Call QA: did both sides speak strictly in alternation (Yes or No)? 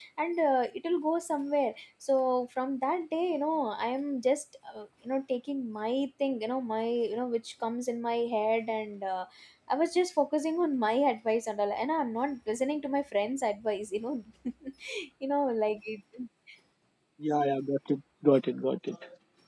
Yes